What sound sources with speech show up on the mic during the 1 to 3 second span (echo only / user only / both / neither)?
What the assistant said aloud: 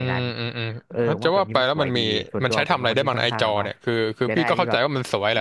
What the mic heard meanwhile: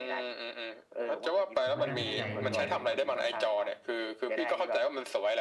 both